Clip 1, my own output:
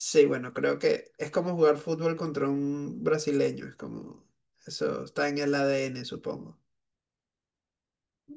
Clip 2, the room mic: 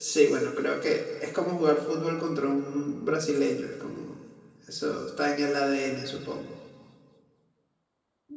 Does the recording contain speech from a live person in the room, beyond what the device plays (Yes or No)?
No